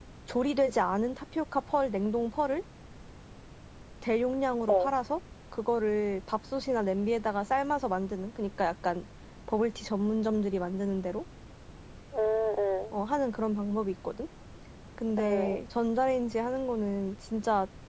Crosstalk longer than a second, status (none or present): none